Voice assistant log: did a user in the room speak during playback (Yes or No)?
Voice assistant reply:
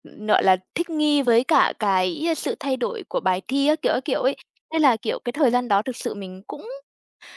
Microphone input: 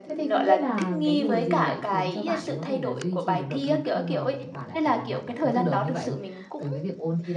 Yes